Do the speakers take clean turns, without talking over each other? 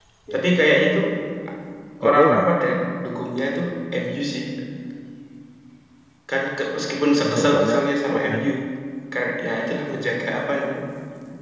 No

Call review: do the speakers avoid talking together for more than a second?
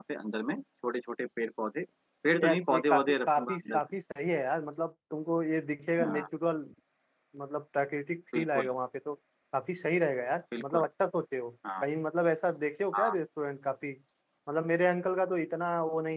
No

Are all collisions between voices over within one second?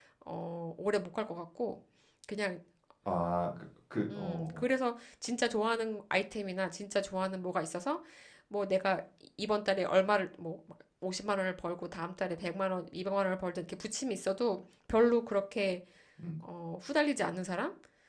Yes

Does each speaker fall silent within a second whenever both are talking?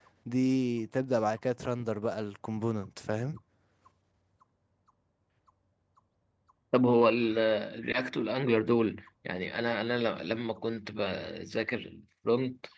Yes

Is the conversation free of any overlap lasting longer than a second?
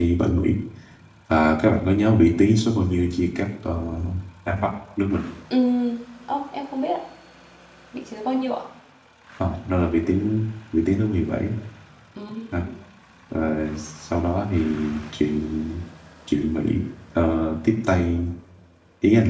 Yes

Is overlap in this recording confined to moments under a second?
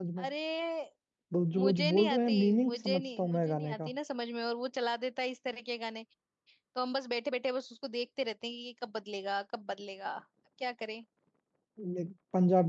No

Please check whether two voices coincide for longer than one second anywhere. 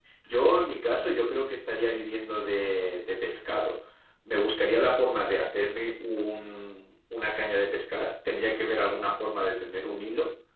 No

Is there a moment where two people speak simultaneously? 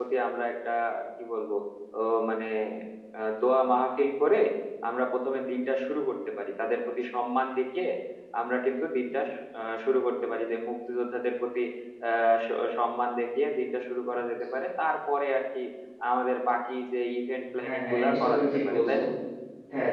Yes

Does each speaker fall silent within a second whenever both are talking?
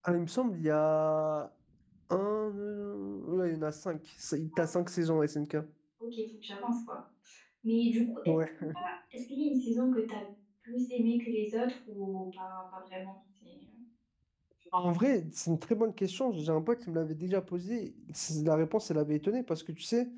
Yes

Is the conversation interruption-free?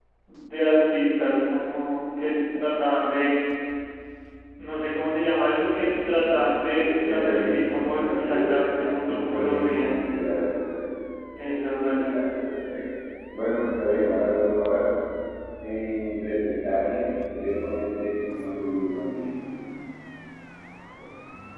No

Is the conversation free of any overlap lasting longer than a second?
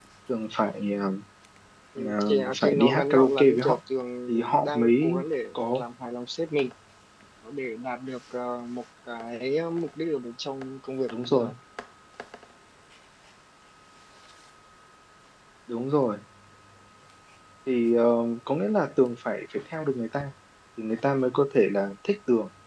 No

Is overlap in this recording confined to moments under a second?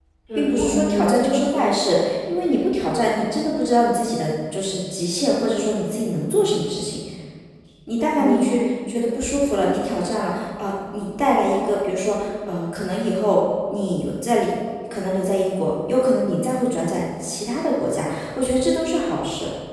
No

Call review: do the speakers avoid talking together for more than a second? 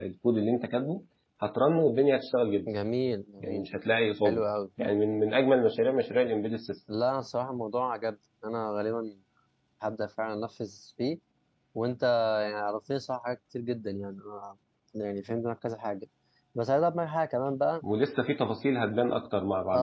Yes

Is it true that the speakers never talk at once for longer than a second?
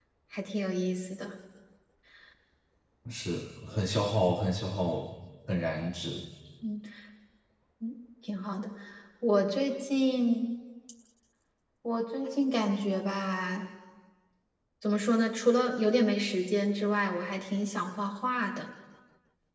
Yes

